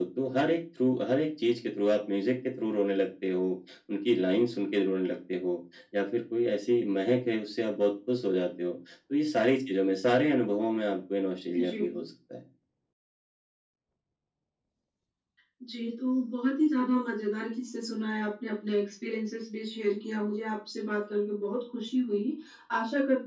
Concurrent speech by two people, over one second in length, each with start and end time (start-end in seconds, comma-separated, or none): none